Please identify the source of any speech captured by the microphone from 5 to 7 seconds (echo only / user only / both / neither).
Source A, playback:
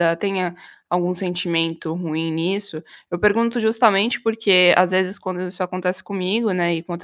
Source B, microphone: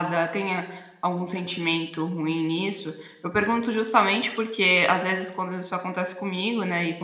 echo only